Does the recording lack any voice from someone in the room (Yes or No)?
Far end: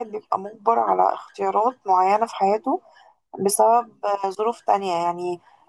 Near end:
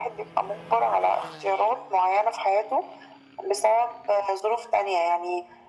Yes